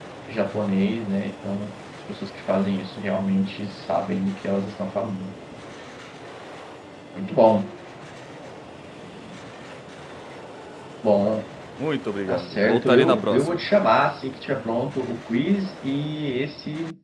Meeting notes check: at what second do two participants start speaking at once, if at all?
12 s

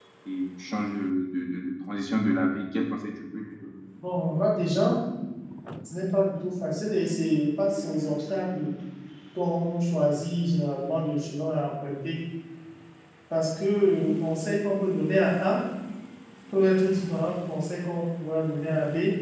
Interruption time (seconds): none

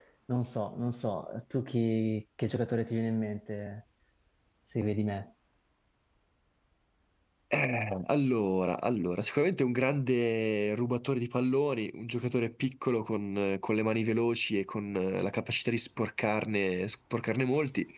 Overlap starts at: none

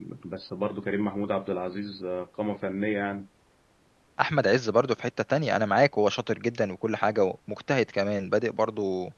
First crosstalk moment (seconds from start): none

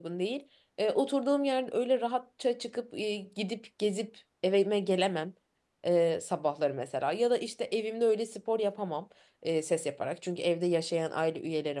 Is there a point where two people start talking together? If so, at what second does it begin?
none

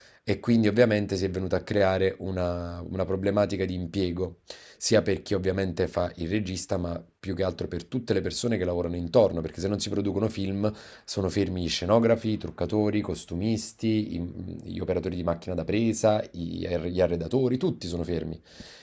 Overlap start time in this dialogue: none

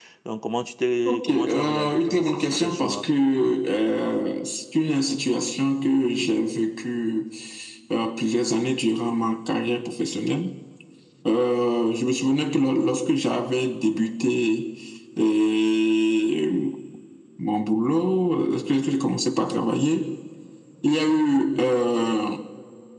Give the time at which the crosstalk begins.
1 s

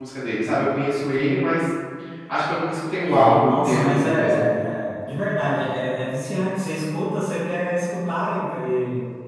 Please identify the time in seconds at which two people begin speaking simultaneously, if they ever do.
3 s

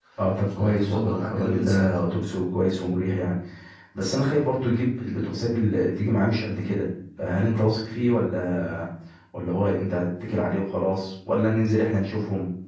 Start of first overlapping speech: 1 s

